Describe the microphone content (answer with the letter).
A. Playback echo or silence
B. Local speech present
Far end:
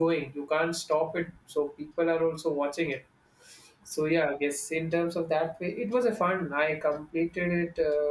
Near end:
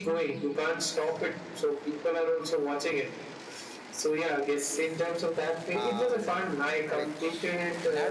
B